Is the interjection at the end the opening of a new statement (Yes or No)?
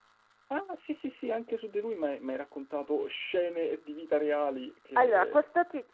Yes